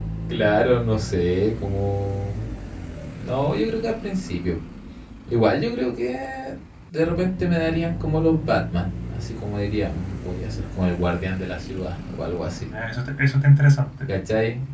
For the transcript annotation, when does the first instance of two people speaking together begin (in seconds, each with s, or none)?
none